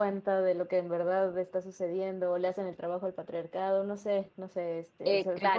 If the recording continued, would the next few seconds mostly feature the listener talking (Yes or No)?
Yes